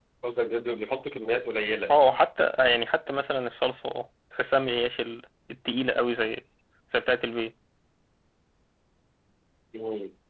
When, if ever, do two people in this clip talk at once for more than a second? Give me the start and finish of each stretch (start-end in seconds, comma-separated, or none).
none